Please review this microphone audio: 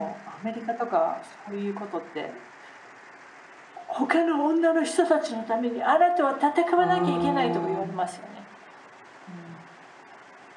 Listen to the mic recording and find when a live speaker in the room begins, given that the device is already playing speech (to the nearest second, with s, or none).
7 s